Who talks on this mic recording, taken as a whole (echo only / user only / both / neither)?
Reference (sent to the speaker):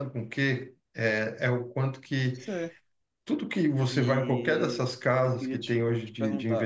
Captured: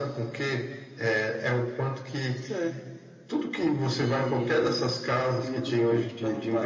both